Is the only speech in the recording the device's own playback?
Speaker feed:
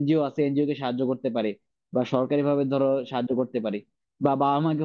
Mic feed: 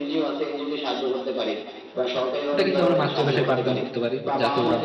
No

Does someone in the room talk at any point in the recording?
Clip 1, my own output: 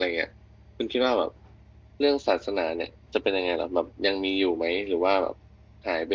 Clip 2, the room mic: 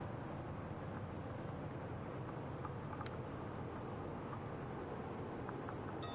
No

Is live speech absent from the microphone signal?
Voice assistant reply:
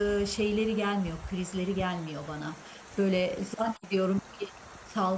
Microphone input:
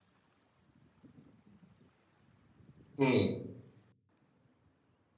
No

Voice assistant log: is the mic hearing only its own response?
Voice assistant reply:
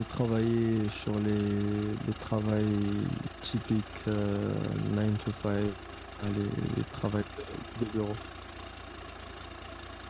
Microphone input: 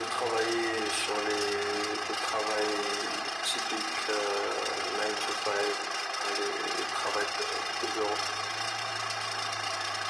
Yes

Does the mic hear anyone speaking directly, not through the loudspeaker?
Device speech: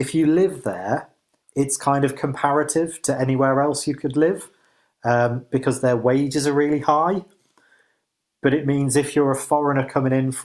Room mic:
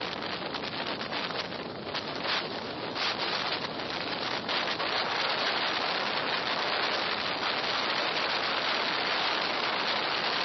No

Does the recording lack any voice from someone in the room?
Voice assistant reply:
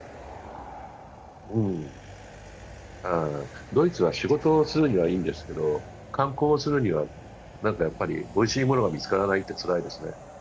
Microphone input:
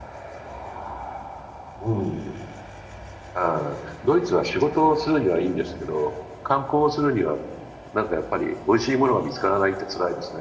Yes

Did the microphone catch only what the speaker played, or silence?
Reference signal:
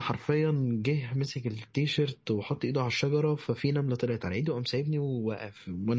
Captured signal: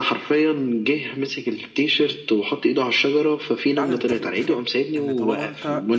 No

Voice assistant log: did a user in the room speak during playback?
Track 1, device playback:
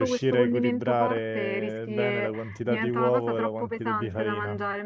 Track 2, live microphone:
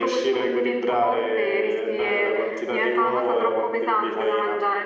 No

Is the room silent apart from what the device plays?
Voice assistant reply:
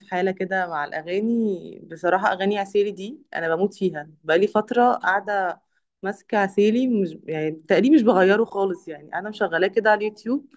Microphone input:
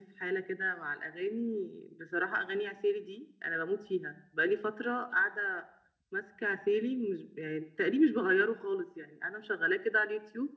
Yes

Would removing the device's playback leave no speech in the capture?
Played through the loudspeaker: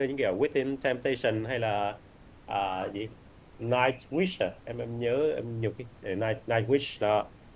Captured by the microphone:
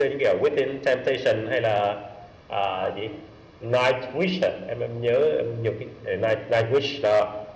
Yes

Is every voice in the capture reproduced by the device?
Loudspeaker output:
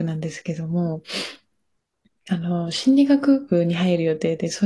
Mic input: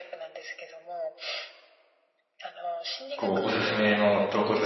No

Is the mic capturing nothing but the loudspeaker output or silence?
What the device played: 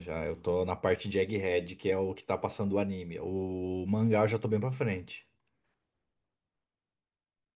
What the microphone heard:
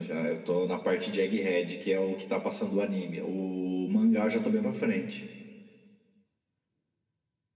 Yes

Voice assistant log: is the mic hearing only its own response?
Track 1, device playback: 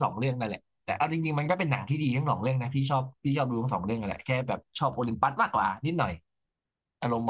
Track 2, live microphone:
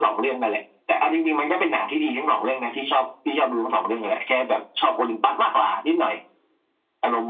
Yes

